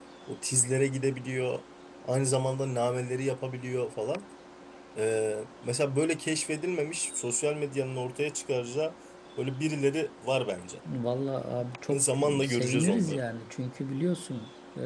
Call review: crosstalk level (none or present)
present